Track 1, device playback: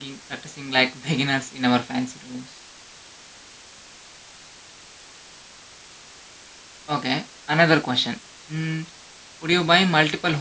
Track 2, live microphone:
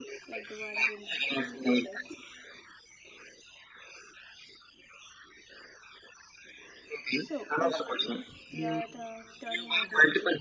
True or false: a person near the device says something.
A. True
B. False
A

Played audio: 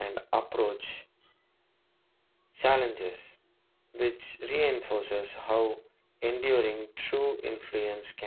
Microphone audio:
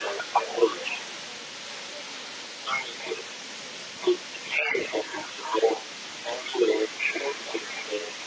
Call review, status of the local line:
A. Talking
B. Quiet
B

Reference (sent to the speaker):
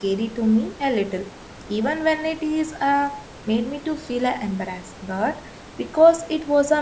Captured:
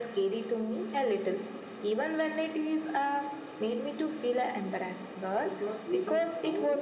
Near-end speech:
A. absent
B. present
B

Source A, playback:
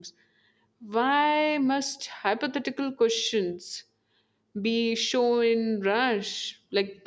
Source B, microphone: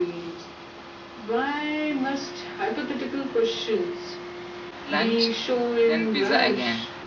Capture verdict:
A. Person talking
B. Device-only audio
A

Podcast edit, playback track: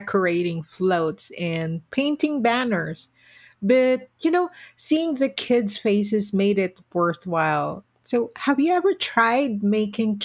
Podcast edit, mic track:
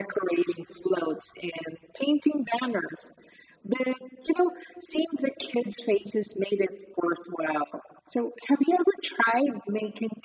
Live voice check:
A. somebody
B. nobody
B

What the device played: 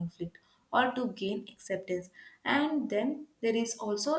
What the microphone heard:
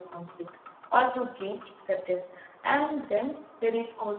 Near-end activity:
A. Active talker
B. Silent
B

